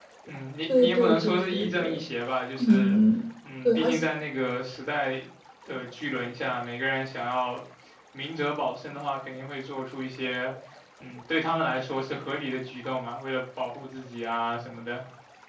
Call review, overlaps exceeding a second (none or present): present